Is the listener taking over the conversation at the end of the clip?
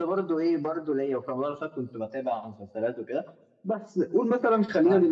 No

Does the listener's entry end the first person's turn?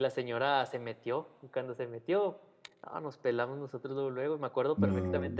No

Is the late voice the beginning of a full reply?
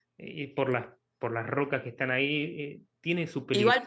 Yes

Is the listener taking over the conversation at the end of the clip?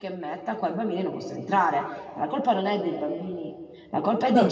No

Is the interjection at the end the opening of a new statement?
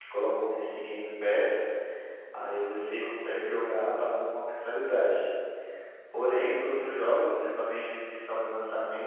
No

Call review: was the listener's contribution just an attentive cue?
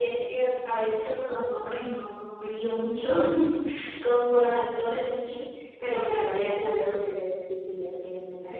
No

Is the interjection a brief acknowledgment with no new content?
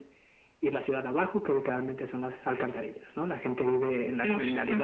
Yes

